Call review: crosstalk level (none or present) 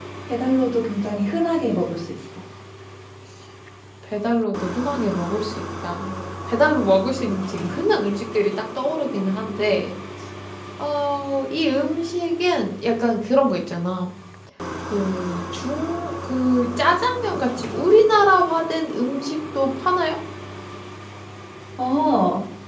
none